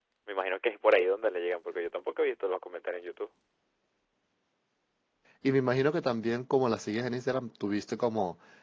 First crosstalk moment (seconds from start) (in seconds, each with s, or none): none